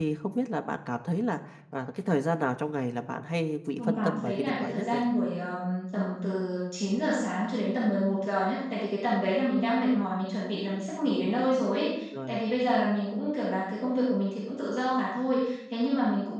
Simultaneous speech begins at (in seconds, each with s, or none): 3.8 s